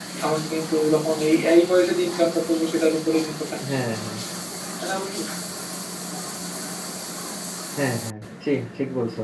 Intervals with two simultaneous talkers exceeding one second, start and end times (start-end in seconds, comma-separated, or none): none